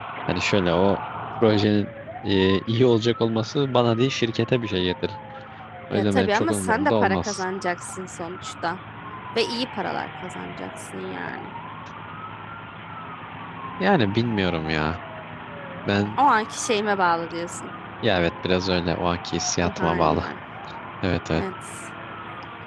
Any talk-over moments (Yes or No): Yes